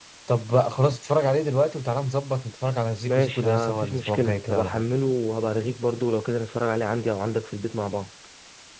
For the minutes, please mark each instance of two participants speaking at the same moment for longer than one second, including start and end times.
3.0-4.8

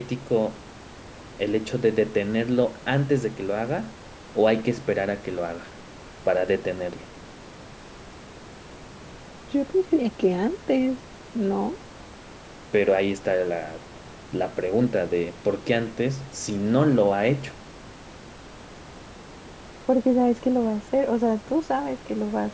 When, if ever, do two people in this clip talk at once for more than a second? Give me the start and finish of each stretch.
none

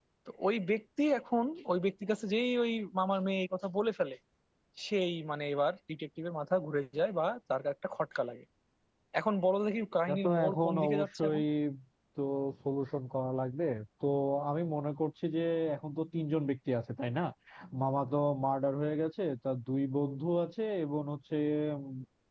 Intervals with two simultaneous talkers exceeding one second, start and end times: 10.1-11.4

